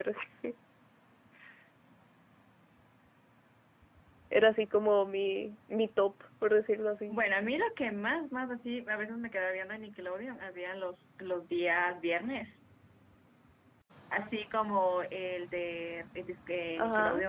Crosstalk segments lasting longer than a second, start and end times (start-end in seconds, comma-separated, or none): none